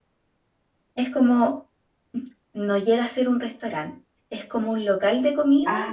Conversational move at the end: taking over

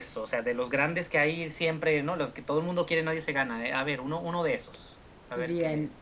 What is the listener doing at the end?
taking over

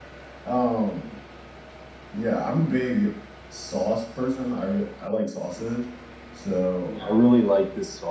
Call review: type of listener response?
taking over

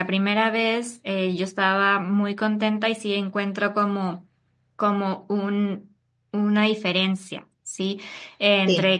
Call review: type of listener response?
listening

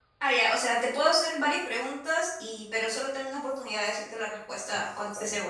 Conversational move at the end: taking over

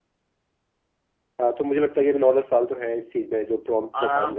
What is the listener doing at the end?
taking over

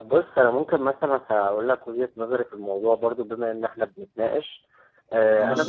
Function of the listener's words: listening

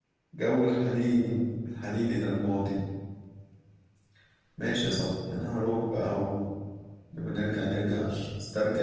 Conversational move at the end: listening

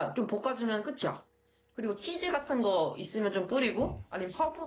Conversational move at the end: listening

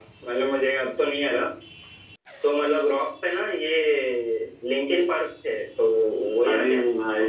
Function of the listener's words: taking over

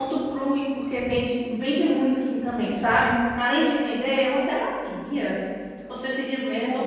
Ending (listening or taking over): listening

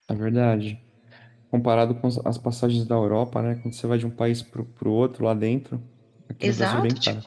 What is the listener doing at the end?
taking over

